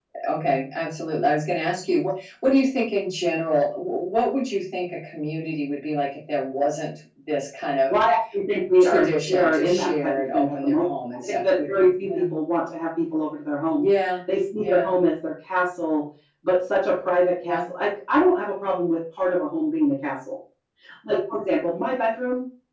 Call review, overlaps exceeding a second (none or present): present